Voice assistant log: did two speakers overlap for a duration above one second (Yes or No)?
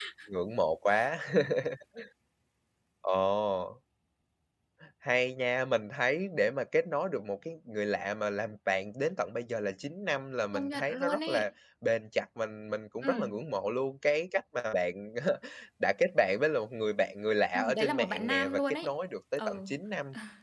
Yes